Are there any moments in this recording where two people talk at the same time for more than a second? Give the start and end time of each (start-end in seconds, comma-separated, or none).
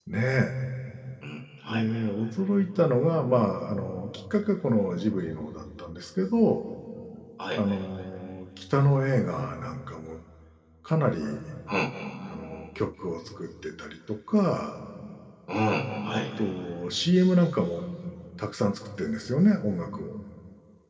none